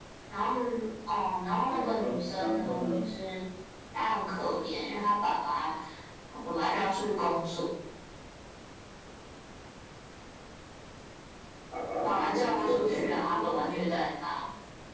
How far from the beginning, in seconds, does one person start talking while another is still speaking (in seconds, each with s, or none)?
1.6 s